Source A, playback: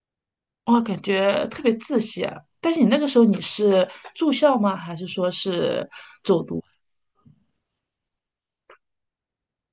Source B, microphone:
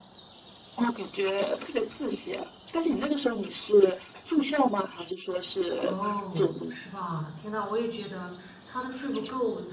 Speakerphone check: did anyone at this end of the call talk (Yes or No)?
Yes